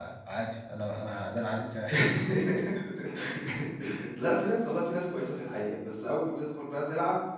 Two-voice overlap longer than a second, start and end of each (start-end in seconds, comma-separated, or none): none